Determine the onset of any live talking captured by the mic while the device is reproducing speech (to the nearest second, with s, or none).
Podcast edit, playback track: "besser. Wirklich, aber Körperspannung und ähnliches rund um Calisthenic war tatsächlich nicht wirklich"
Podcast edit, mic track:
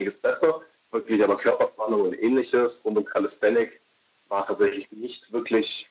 none